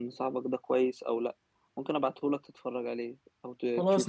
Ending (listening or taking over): taking over